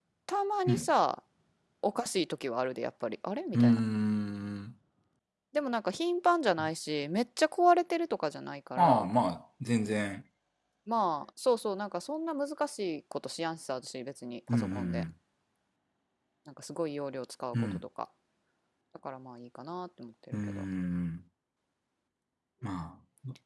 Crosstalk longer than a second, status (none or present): none